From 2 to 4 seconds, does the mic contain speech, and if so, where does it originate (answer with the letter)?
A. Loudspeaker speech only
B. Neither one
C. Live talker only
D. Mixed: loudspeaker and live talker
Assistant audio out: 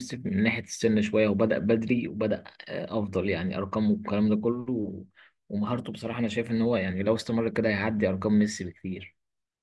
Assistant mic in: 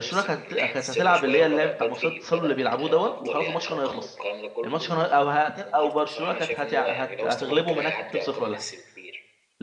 D